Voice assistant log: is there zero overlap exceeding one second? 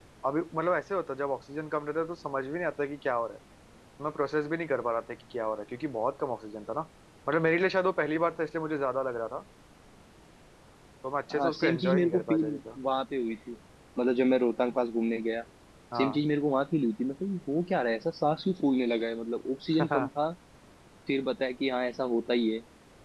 No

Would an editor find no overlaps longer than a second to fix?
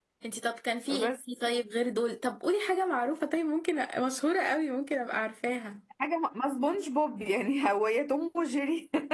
Yes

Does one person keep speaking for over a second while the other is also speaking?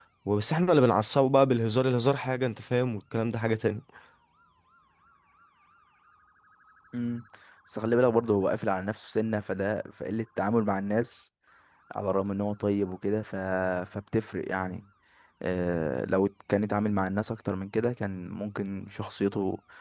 No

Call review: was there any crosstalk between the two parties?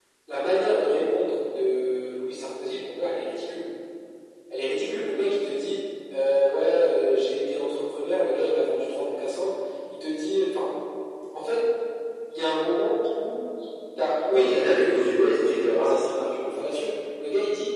Yes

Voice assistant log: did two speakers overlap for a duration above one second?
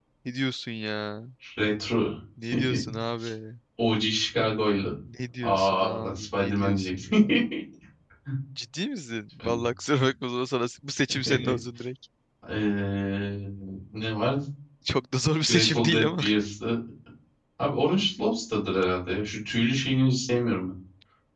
Yes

